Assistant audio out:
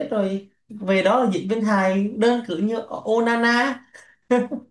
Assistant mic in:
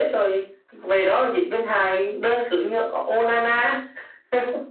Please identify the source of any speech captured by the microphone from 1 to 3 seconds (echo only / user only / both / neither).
echo only